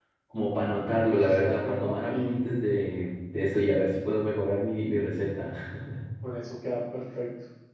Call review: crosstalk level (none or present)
present